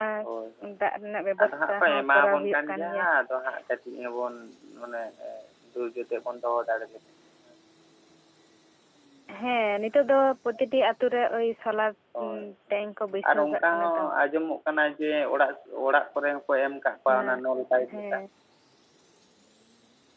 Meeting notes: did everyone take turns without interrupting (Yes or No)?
No